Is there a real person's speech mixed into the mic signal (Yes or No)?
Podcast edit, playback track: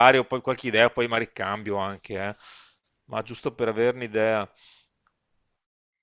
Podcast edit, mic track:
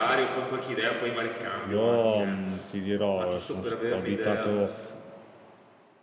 Yes